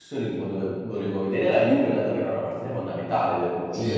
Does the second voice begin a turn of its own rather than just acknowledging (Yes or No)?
No